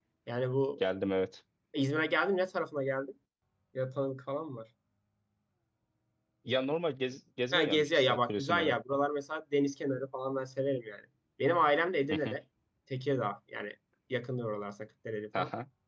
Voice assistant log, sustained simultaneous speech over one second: present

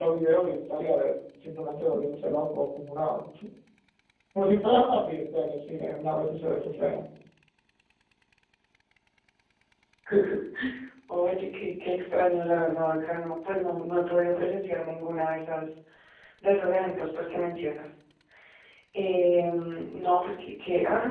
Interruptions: none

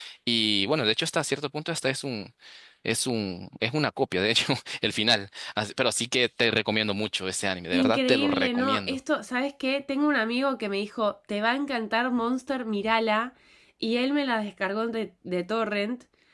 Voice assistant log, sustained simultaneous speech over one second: present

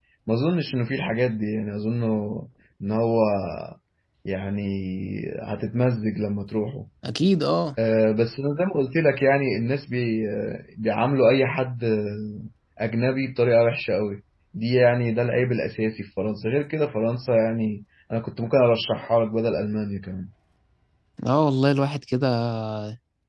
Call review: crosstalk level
none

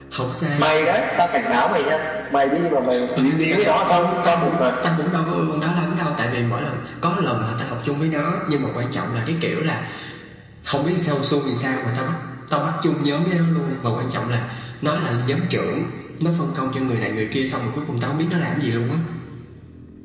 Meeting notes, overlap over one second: present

